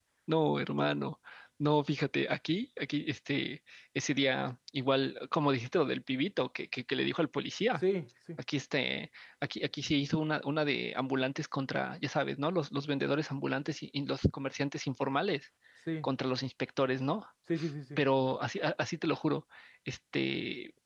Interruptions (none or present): none